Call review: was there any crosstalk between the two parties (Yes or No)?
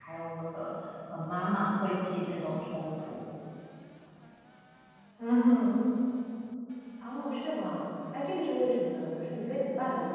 No